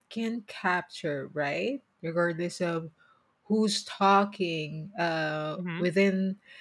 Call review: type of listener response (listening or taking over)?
listening